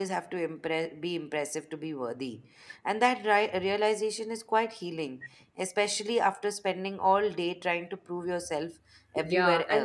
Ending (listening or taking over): taking over